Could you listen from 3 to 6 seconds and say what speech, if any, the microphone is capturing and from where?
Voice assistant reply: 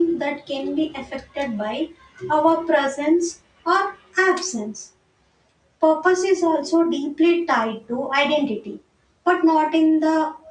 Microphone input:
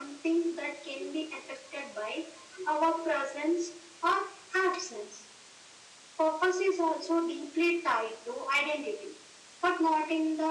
echo only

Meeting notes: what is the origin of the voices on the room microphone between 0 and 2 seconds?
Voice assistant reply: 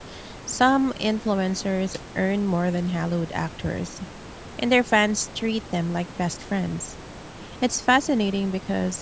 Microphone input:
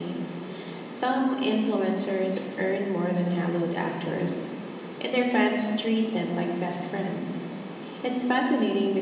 echo only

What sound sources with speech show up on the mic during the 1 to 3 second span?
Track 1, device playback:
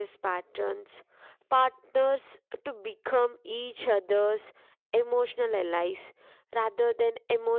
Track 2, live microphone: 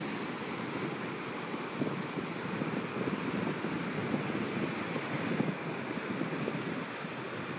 neither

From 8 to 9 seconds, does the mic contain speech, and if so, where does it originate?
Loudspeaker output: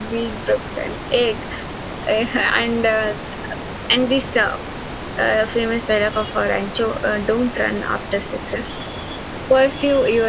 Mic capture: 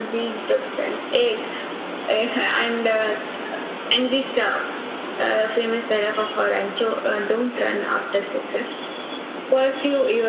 echo only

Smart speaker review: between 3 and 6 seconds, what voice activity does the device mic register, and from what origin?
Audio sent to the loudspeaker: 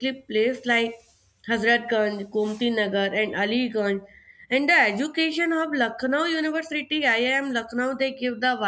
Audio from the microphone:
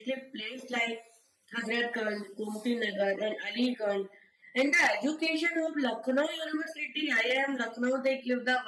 echo only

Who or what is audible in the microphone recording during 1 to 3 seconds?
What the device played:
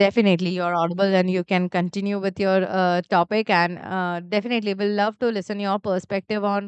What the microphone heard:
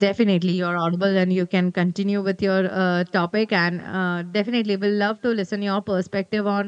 echo only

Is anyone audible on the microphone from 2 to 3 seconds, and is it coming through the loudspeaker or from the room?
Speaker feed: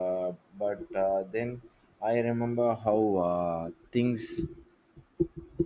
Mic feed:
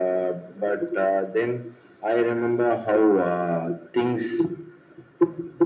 echo only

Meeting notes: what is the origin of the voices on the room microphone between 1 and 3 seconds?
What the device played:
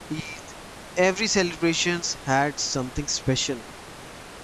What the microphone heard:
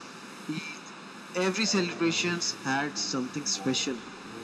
both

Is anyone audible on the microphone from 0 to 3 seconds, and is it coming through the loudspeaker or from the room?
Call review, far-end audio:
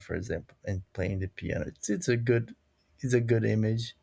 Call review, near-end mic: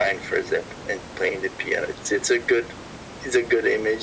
echo only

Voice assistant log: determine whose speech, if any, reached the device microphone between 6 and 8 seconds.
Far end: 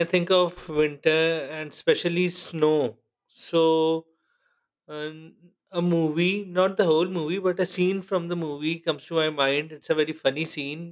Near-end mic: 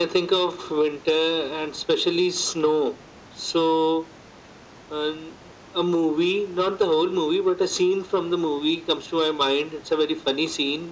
echo only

